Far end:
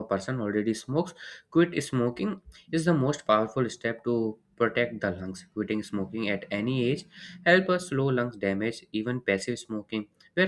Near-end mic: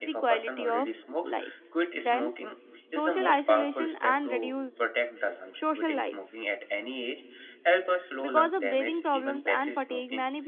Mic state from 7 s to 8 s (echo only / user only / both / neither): echo only